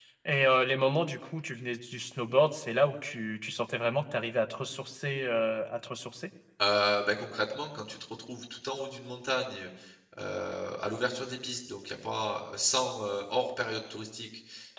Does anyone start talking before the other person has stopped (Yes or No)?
No